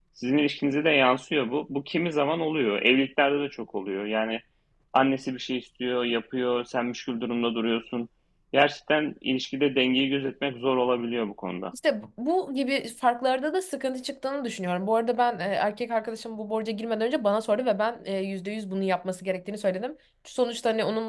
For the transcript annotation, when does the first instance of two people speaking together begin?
none

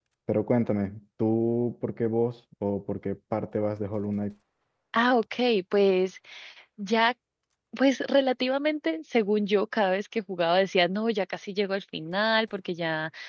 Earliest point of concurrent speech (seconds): none

